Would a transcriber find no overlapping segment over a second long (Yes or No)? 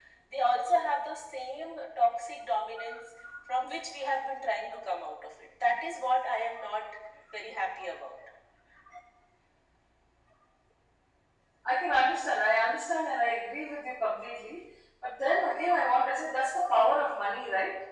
Yes